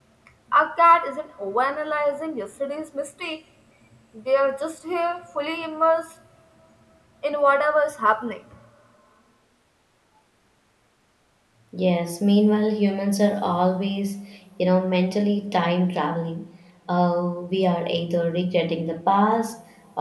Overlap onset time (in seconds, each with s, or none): none